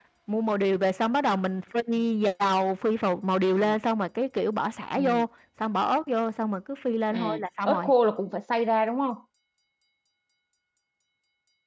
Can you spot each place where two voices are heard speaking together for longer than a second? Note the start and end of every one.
none

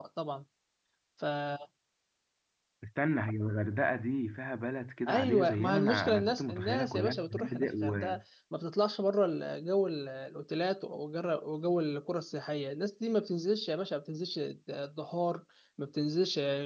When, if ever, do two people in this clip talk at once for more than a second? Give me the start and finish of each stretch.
5.1-8.2

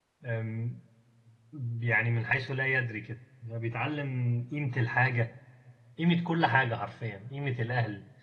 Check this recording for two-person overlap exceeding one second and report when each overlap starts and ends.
none

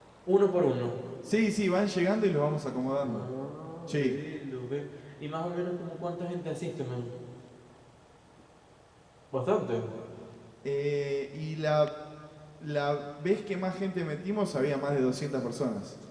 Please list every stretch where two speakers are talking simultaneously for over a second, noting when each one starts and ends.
none

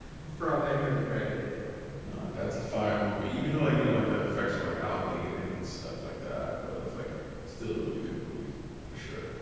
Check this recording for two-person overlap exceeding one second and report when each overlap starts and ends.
none

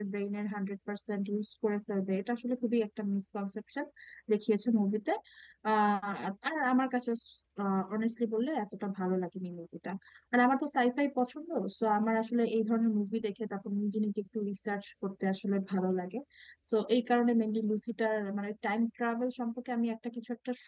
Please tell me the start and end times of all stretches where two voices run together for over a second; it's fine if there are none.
none

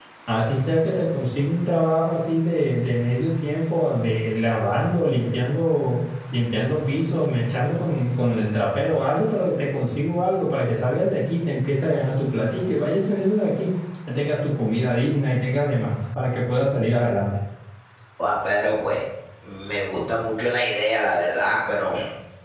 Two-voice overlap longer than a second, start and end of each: none

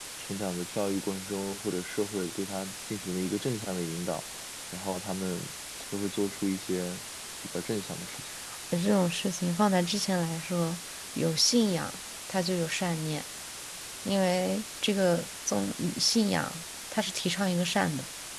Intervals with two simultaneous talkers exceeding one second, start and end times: none

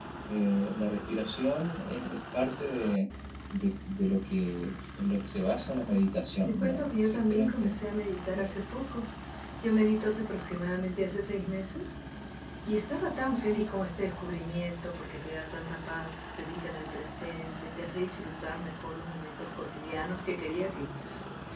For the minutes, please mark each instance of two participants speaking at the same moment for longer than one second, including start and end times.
6.5-7.8

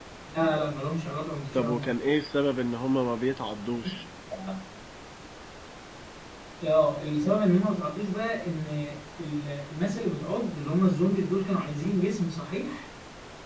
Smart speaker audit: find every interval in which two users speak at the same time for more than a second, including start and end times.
none

